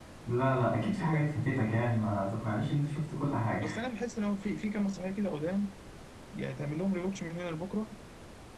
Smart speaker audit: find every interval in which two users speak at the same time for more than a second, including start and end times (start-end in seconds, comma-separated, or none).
none